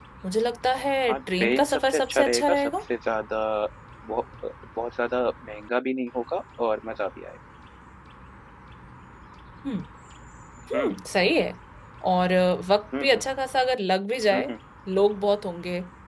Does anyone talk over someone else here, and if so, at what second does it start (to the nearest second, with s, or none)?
1 s